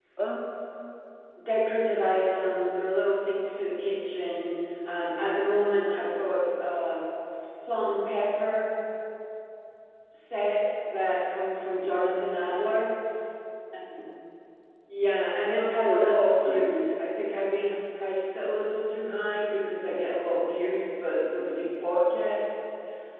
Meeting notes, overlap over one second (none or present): present